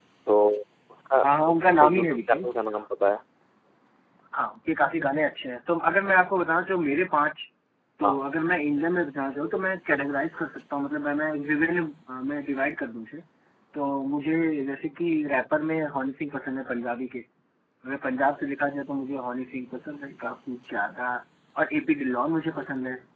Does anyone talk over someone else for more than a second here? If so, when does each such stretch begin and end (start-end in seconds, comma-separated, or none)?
1.2-2.5